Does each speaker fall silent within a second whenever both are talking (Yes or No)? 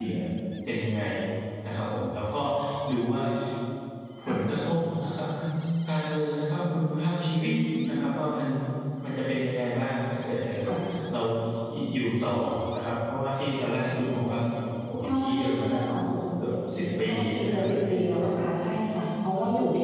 No